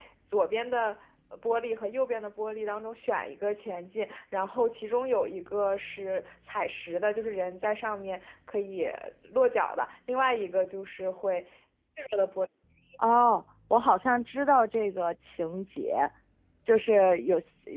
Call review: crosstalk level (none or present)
none